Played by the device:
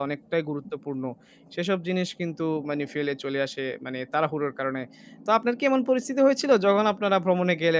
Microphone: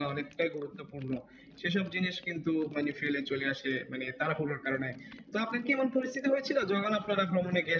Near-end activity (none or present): none